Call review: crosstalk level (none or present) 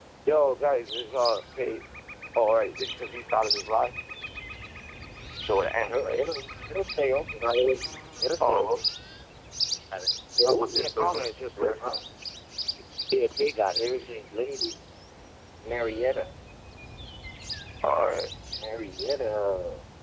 present